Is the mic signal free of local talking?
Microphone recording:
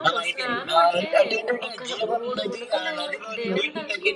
No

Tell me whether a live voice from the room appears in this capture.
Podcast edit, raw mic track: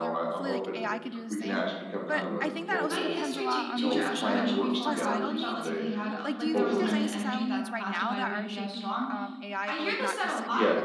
Yes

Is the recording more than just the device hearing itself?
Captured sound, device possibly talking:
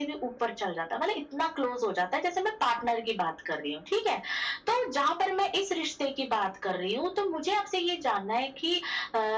No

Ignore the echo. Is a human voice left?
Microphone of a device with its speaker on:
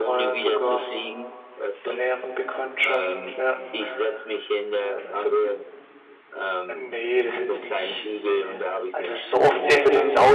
Yes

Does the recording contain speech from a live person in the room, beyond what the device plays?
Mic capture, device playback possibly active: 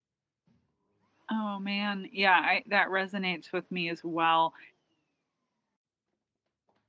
Yes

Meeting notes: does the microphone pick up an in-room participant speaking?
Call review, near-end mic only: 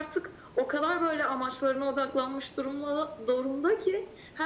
No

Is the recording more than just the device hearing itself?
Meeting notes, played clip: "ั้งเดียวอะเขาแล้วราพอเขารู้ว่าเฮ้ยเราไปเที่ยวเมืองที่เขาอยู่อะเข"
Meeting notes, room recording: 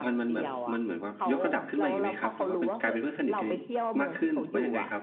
Yes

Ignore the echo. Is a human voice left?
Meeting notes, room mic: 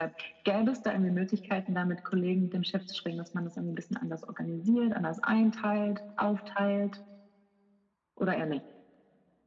No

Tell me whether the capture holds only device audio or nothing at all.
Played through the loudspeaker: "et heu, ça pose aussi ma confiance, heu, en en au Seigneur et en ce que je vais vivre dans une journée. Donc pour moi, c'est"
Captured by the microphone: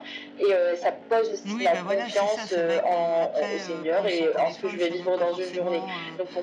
No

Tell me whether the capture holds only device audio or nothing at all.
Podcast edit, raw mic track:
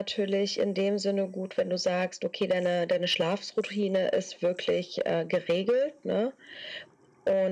Yes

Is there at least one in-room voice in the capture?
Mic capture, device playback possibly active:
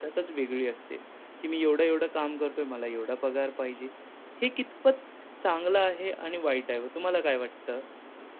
Yes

